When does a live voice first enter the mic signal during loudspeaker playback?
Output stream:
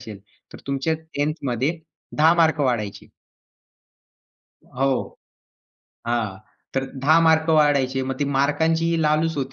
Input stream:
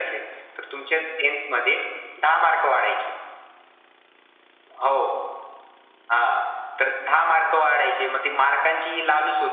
none

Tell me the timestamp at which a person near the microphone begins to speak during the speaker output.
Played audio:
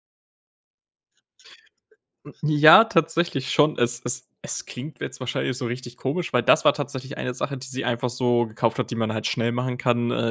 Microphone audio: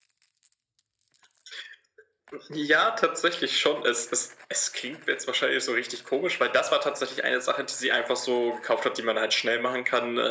none

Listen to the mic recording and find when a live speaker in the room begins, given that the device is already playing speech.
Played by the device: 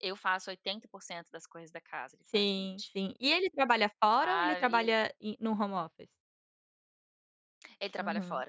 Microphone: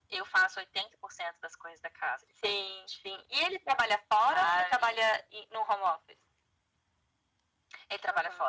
none

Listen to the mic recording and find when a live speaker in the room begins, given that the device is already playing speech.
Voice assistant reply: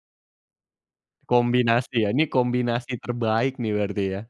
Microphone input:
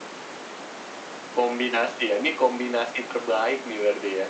none

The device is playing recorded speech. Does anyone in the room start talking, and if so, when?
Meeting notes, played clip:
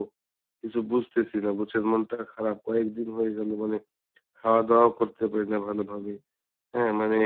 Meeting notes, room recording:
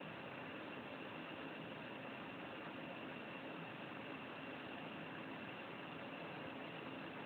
none

